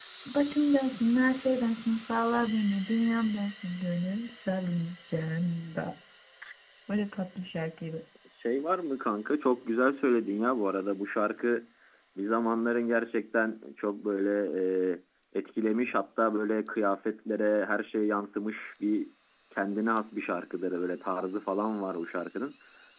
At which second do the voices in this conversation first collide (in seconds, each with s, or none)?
none